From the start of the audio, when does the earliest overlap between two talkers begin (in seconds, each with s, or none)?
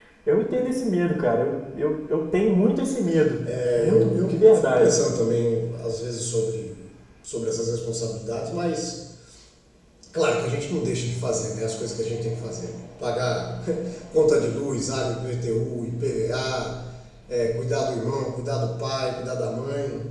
3.8 s